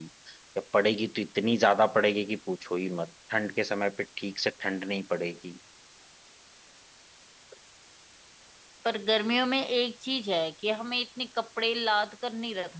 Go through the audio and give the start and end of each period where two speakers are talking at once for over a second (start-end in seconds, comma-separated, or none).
none